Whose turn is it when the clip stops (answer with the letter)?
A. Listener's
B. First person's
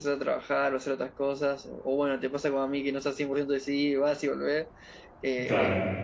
B